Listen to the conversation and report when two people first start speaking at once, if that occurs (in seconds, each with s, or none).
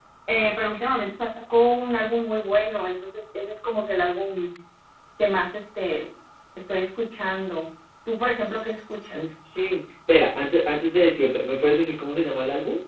none